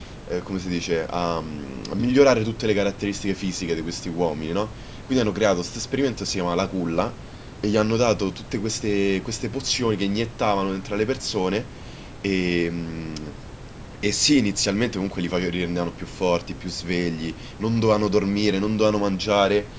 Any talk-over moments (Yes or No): No